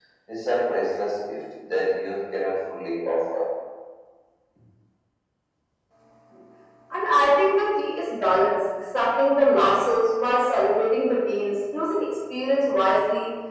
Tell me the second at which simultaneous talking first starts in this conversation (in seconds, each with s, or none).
none